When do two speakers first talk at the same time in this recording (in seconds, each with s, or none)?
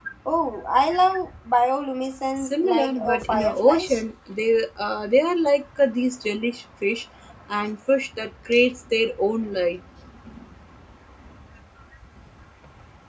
2.4 s